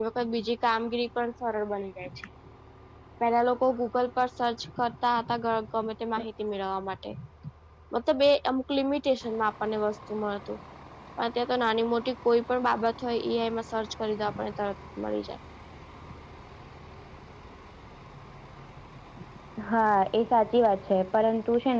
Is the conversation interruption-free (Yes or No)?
Yes